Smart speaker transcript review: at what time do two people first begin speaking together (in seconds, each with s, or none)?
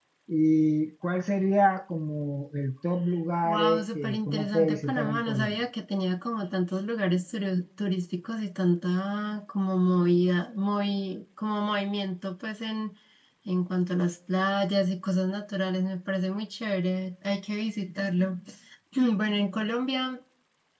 3.5 s